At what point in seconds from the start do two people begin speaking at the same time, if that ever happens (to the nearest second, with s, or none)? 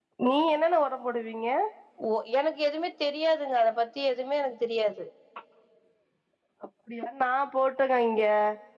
none